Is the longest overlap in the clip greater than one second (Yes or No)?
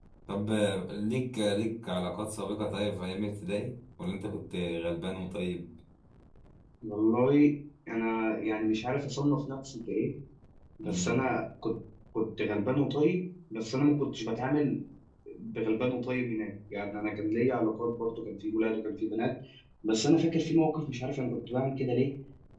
No